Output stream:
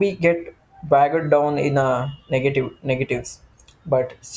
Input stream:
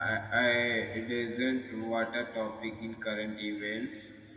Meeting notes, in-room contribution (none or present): present